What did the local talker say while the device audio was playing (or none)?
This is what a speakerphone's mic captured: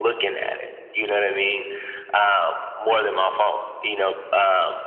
none